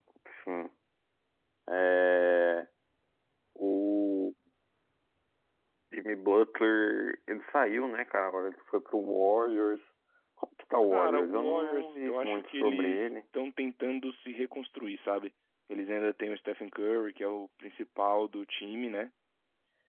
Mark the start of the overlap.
10.9 s

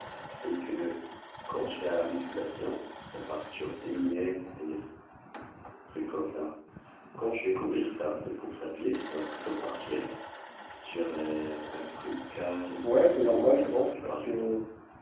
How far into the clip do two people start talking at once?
12.8 s

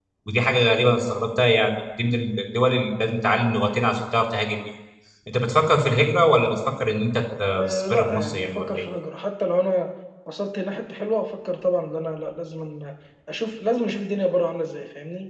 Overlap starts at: 7.5 s

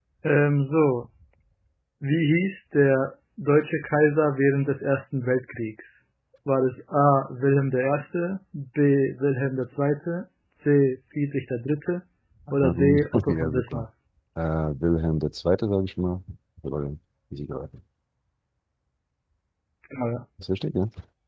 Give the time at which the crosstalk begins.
12.5 s

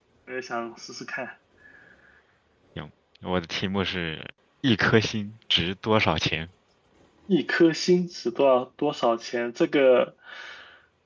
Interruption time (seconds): none

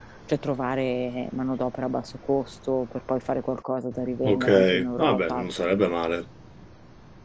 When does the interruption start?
4.2 s

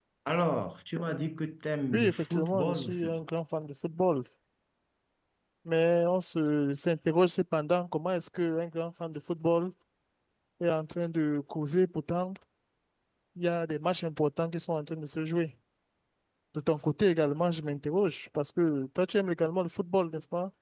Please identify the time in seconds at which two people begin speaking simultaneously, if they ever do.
1.9 s

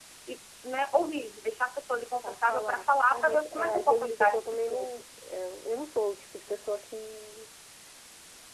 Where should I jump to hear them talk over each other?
2.2 s

